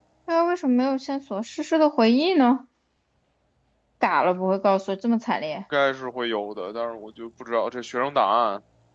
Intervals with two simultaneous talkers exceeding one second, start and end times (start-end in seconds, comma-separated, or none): none